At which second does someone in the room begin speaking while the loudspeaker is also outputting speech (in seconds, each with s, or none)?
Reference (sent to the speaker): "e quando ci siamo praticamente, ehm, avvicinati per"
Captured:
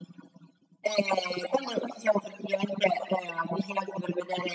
none